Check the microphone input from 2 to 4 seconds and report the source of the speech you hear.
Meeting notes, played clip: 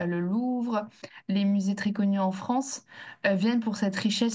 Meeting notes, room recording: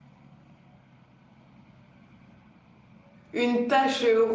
user only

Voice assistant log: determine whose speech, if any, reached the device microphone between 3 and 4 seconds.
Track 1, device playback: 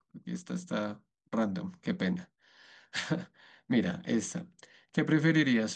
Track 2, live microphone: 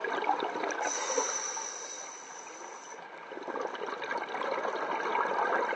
neither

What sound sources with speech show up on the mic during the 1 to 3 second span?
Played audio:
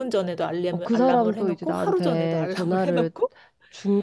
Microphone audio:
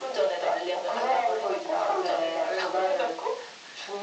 echo only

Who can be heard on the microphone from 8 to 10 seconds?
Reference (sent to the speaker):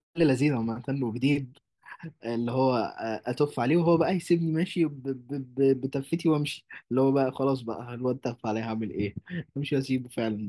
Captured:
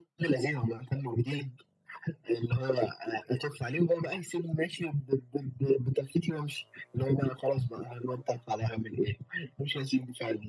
echo only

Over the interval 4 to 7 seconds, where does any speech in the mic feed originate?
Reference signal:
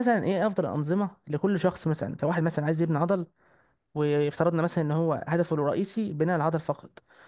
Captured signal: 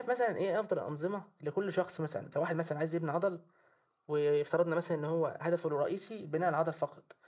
echo only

